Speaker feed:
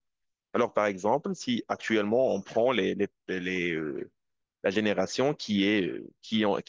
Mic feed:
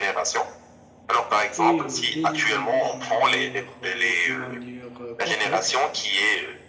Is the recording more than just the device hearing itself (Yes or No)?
Yes